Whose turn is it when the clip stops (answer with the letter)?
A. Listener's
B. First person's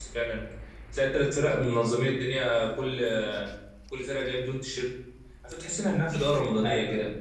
A